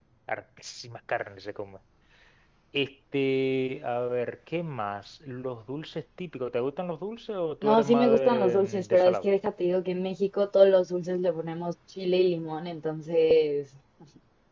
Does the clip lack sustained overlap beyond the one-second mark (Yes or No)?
No